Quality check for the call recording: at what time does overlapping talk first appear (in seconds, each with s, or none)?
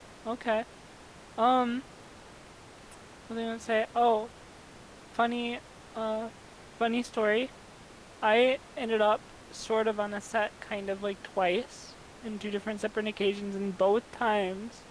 none